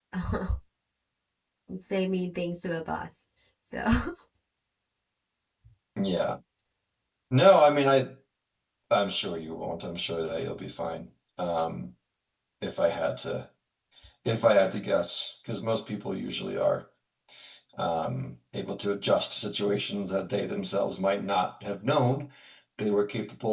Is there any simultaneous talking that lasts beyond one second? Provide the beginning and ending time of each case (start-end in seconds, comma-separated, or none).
none